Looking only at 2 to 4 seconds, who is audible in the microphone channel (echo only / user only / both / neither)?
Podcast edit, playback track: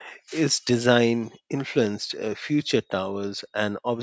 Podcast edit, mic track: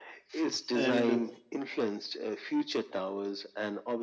echo only